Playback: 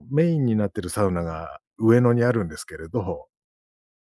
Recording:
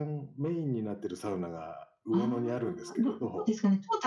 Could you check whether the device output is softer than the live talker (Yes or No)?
Yes